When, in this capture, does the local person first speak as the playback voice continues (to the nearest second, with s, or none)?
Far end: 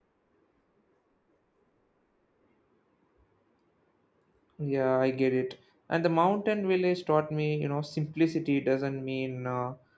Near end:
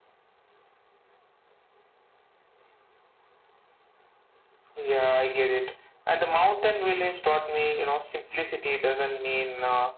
none